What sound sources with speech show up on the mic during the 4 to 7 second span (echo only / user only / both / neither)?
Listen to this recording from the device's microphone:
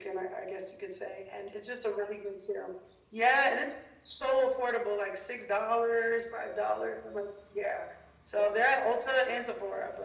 echo only